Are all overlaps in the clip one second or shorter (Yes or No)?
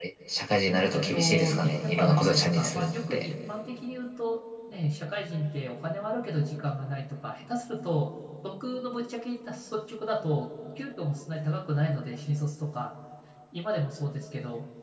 No